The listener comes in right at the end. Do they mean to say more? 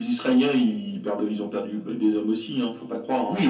Yes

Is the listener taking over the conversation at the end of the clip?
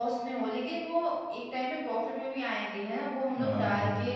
No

